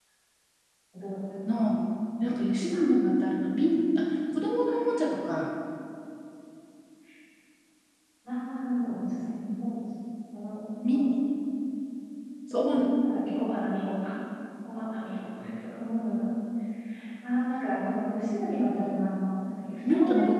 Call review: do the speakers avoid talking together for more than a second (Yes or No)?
Yes